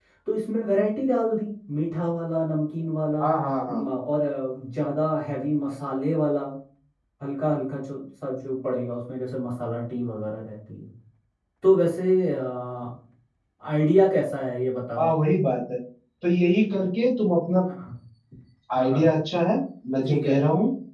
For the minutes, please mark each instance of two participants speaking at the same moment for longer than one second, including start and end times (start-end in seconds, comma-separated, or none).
none